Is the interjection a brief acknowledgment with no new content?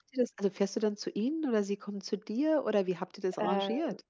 No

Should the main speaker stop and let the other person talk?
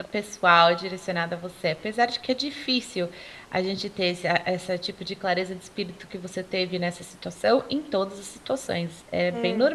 No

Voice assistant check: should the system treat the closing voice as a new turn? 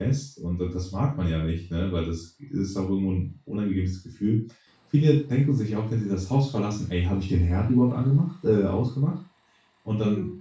No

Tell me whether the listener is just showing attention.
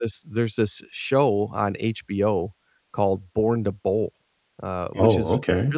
Yes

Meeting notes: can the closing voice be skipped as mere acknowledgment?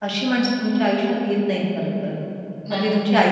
Yes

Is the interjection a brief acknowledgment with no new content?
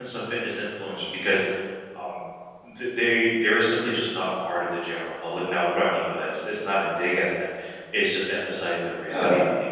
Yes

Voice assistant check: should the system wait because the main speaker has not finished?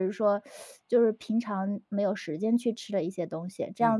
No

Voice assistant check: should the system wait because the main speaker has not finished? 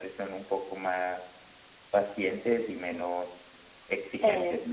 No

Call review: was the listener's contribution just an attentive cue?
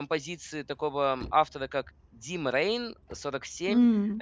Yes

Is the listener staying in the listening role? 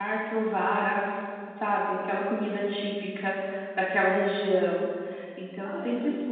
Yes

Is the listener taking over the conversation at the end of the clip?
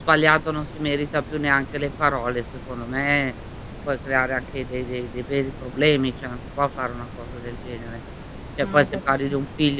No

